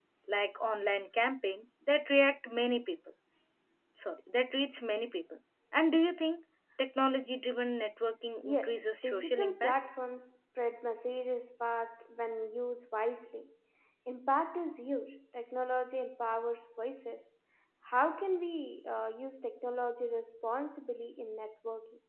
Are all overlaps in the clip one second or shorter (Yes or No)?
No